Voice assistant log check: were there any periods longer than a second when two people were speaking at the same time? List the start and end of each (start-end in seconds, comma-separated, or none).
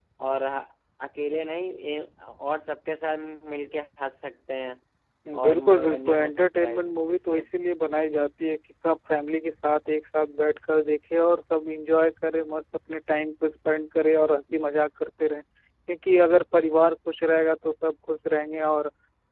5.4-7.4